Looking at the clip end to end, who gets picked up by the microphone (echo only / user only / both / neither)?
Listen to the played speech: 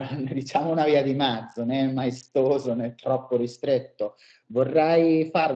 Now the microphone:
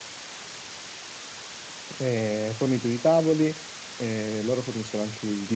user only